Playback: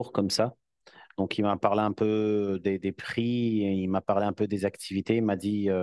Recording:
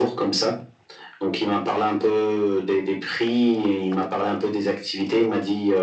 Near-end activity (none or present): none